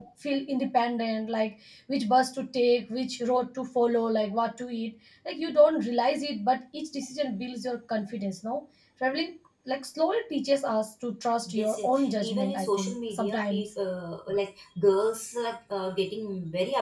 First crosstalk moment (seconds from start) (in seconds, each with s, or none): 11.5 s